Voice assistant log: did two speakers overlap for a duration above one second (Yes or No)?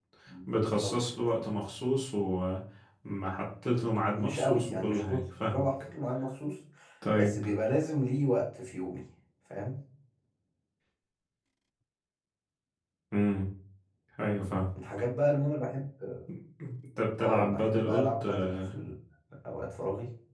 Yes